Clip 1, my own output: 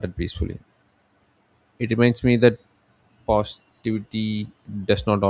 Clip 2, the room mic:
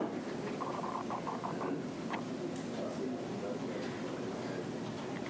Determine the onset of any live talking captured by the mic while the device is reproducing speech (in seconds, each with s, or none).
none